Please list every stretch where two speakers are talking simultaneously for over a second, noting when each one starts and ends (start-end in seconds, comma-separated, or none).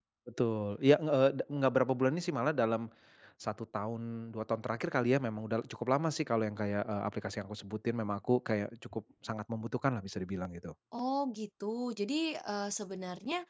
none